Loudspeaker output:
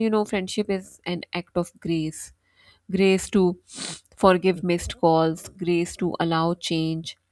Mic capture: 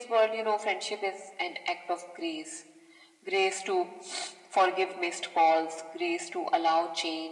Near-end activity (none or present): none